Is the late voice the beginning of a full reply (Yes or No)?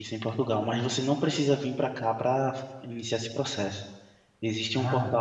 No